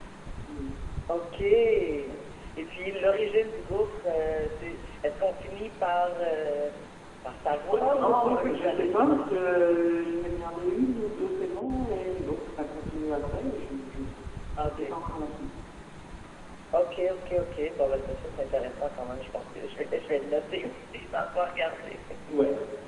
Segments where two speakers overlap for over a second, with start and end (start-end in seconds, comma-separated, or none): 7.5-8.9